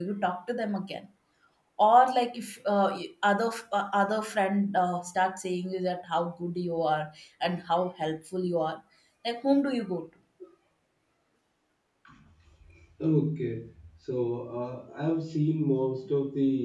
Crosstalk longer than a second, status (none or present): none